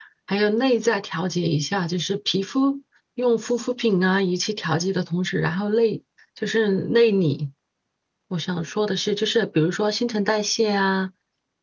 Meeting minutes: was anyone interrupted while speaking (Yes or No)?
No